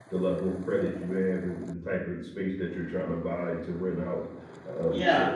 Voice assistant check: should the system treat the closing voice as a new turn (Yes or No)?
Yes